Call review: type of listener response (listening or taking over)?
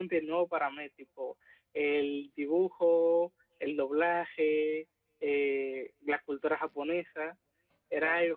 listening